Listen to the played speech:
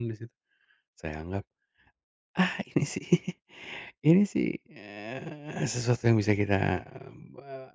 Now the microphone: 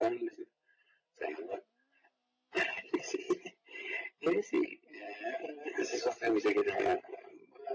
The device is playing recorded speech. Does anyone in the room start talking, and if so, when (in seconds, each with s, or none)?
none